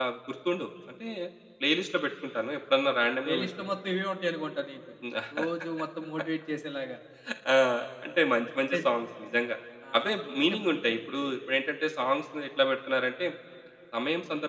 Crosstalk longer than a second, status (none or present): none